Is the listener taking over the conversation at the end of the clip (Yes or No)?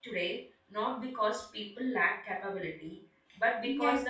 Yes